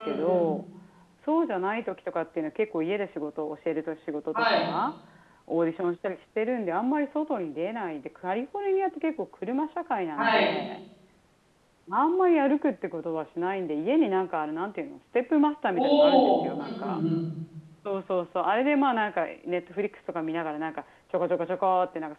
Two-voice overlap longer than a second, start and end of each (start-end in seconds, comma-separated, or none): 15.7-17.0